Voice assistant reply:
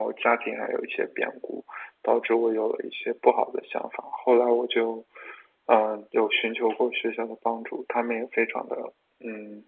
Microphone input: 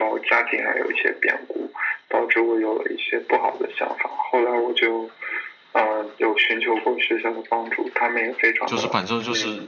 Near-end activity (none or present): present